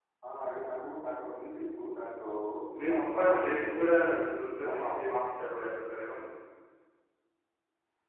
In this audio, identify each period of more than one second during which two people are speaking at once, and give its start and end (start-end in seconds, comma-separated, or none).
2.9-4.2